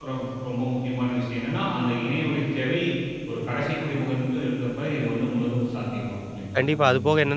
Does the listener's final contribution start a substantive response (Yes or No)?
Yes